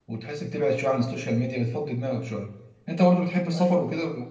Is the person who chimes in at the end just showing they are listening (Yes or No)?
Yes